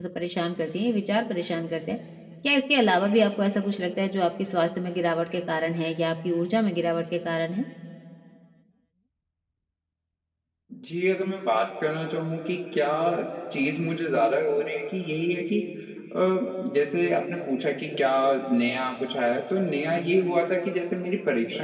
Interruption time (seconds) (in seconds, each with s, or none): none